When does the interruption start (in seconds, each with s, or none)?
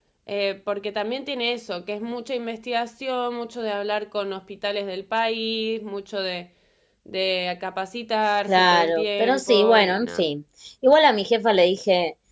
8.4 s